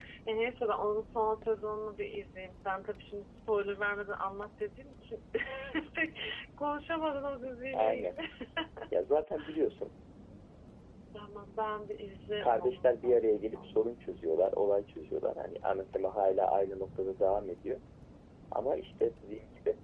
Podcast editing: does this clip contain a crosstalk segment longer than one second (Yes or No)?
Yes